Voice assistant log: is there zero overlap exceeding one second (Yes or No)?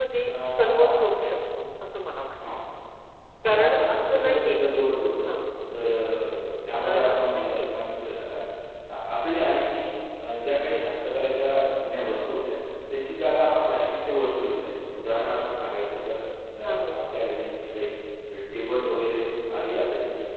No